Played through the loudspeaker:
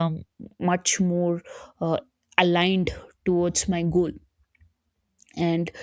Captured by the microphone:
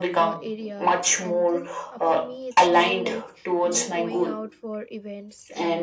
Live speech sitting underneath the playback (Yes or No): Yes